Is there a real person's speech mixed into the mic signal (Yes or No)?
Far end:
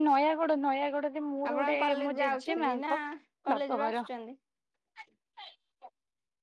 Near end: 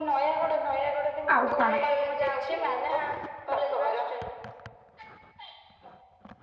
Yes